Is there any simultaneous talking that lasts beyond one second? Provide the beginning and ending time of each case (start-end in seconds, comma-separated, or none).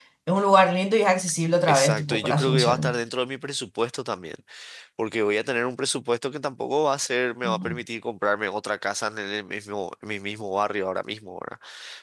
1.7-3.0